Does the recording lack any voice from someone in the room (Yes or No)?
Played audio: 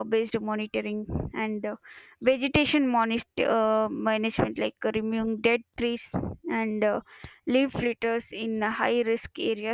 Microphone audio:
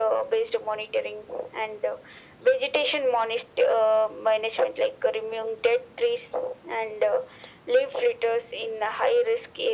Yes